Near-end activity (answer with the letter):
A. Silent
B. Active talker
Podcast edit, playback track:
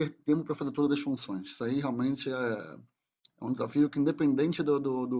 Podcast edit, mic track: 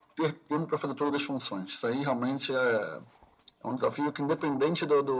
A